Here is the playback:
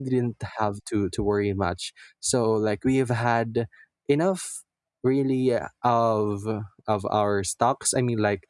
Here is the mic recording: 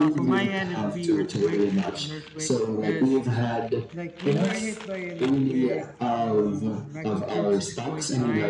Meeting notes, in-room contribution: present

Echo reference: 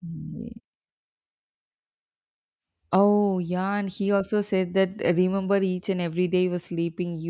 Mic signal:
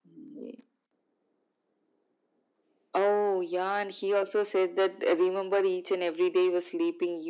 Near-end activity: none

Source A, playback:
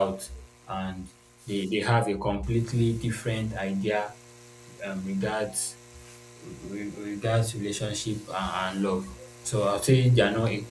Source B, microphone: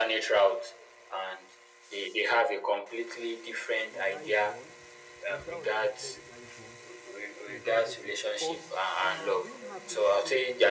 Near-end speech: present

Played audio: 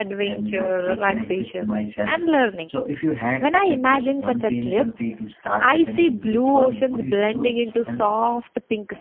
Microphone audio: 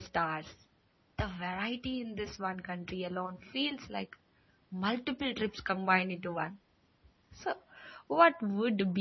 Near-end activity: present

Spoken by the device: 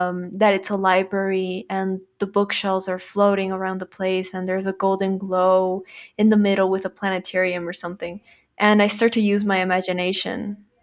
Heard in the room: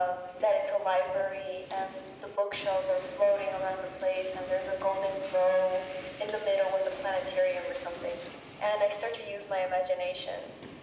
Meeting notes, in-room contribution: none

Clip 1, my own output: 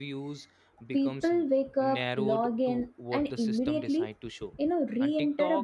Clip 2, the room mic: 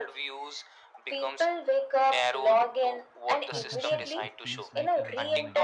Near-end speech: present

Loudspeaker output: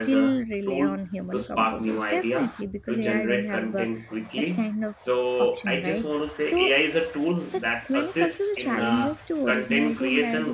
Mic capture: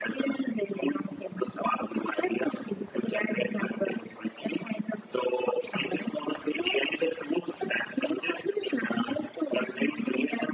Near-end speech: none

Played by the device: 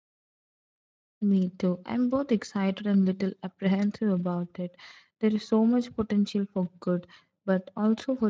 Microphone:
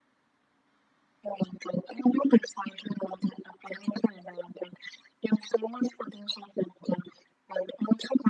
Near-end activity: none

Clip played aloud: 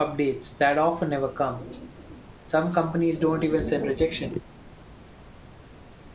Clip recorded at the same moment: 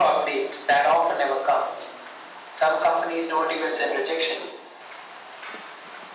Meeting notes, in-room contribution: none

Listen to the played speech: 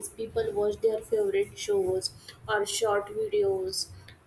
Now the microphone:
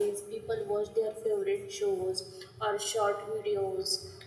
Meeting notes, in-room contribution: none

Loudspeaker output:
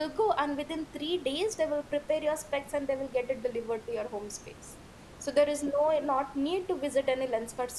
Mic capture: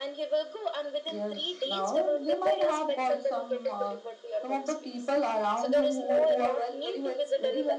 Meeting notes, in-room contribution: present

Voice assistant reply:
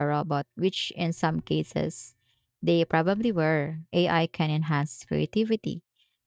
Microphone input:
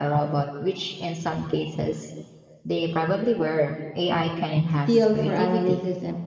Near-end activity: present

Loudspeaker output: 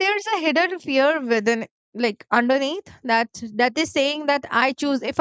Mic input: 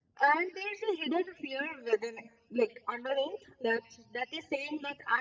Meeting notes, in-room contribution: none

